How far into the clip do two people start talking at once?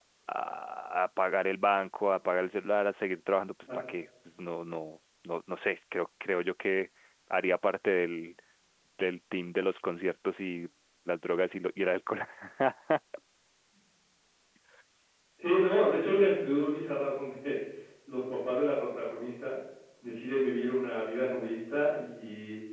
none

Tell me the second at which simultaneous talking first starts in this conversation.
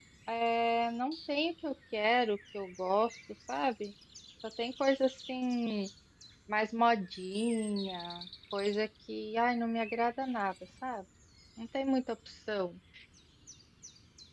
none

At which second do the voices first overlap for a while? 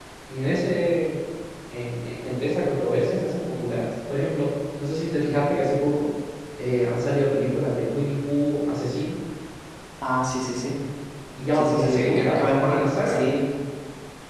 11.5 s

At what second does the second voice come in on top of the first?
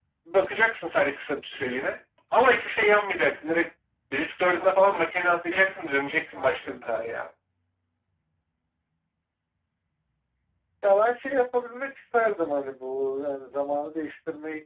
none

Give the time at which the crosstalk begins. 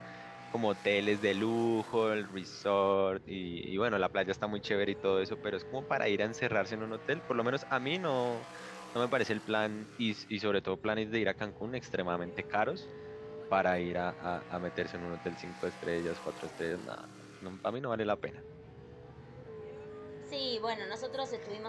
none

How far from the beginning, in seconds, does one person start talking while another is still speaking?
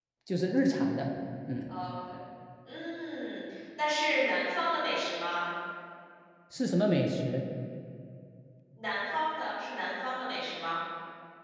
none

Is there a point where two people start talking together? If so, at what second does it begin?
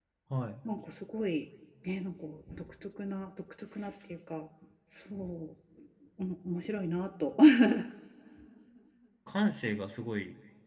none

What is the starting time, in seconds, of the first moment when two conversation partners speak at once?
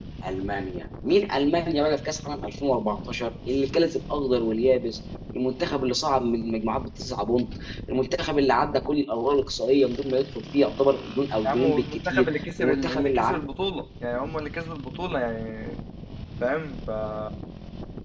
11.4 s

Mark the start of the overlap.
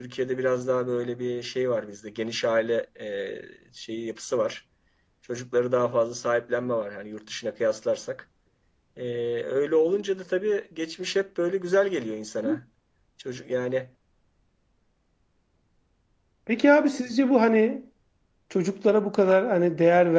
none

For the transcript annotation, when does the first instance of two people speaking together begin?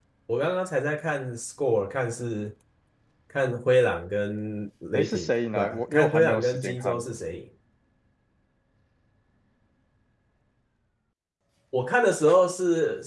4.9 s

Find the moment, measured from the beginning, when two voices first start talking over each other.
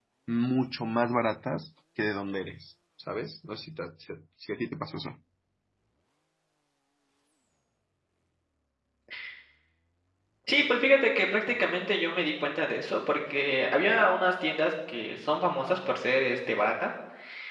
none

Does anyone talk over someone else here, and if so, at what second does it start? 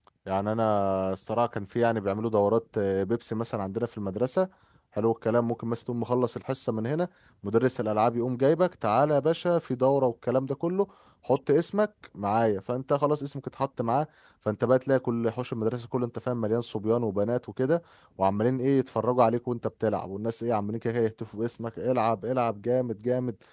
none

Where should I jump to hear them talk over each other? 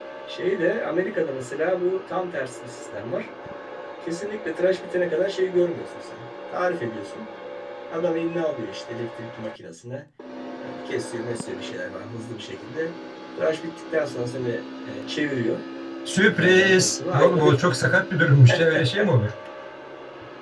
16.2 s

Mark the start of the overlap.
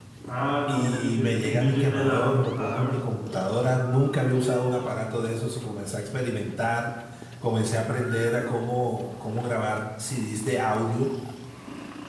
0.7 s

